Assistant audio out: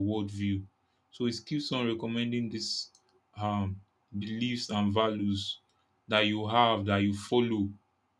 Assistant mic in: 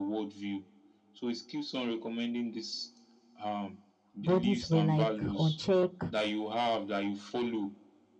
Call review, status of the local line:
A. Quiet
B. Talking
B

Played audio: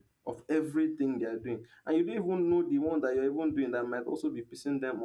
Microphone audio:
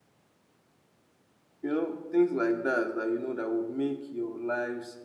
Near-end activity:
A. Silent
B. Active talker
B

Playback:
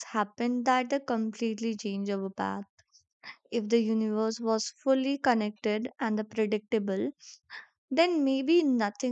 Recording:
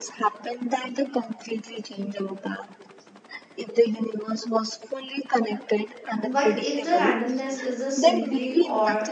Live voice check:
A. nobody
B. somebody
B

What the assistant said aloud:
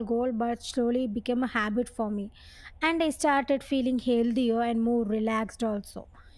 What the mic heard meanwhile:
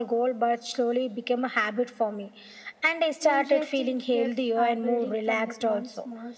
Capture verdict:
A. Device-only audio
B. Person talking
B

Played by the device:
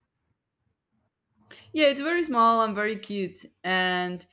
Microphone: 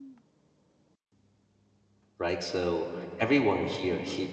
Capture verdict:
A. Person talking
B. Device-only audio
A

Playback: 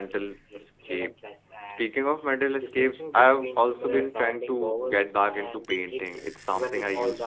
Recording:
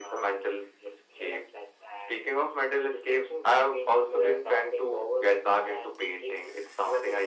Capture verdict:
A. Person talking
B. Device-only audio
B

